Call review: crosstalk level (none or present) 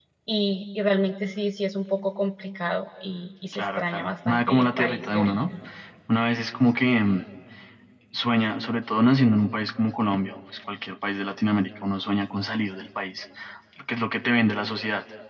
present